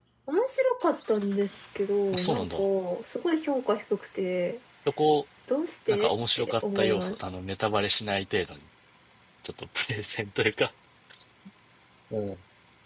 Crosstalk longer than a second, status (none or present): present